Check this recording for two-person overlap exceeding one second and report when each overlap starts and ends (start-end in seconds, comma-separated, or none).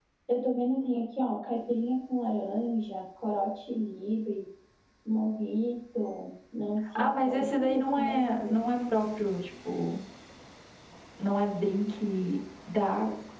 7.0-8.6